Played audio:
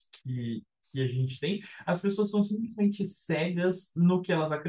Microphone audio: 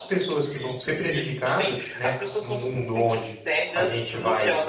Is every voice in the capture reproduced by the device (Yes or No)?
No